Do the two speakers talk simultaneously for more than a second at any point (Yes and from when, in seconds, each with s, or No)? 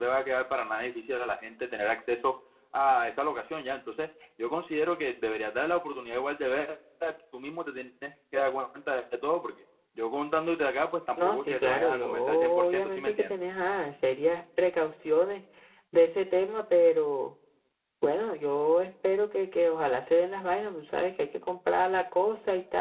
Yes, from 11.2 s